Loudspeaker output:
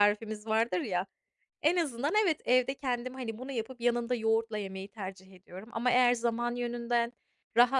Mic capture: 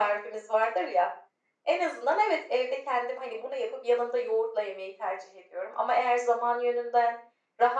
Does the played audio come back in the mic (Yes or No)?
Yes